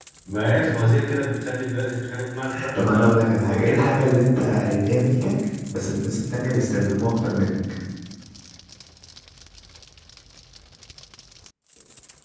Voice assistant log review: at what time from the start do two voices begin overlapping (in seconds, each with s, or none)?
2.7 s